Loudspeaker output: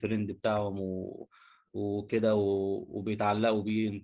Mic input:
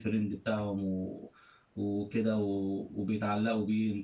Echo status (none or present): present